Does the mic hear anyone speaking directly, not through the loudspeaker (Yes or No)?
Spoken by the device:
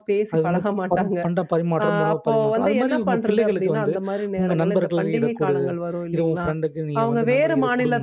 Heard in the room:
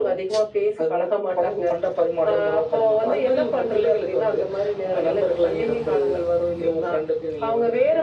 No